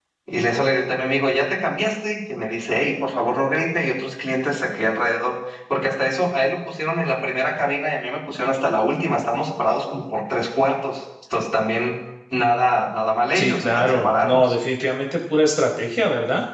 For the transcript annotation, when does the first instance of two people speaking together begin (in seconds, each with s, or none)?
13.3 s